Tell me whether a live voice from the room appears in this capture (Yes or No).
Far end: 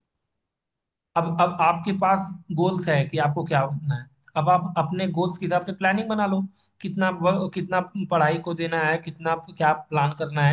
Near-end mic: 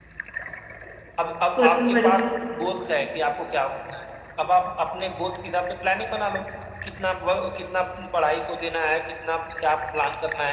Yes